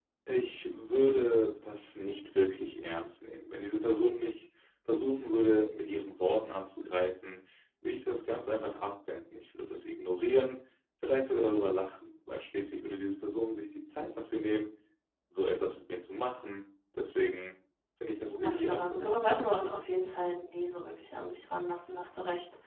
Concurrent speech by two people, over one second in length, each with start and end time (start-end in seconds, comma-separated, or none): 18.3-19.5